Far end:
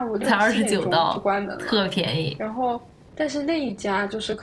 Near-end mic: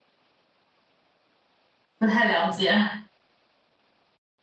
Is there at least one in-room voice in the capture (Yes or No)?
Yes